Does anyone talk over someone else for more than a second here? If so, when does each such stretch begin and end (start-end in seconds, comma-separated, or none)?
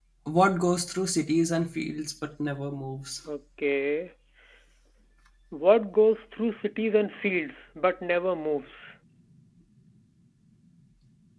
none